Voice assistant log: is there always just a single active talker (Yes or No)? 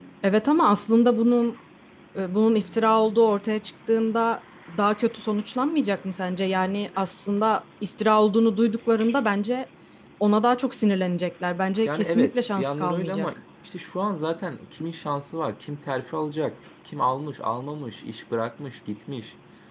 No